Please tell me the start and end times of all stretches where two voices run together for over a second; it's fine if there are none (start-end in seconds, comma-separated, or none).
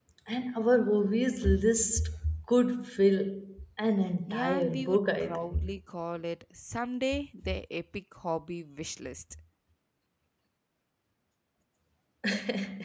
4.3-5.7